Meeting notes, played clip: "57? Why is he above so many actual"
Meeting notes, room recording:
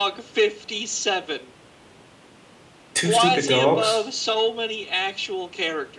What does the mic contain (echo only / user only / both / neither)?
both